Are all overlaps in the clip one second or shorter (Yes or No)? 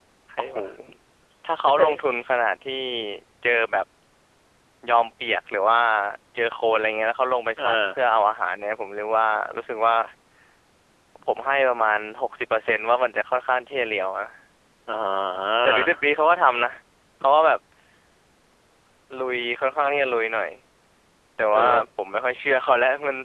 Yes